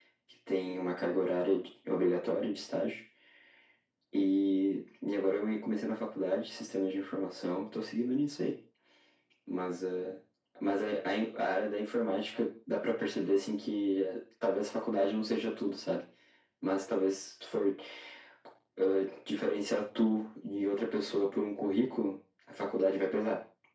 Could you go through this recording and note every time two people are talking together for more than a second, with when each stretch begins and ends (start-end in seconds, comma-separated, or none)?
none